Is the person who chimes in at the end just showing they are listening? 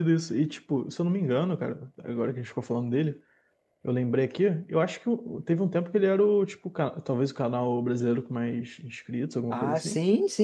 No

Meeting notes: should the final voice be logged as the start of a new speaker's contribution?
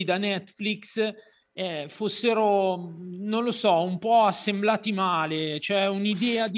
No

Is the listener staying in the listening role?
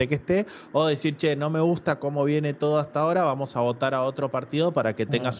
Yes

